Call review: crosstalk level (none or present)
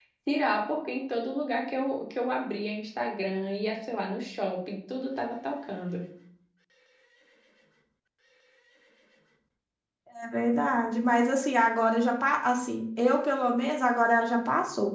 none